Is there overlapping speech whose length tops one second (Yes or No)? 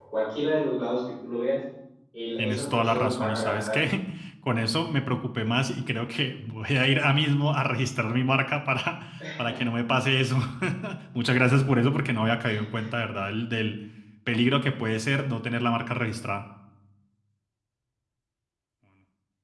Yes